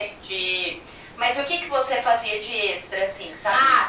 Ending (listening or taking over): taking over